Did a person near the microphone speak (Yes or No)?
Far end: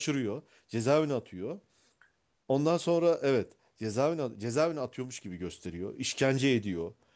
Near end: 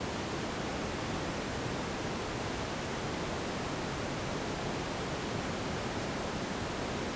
No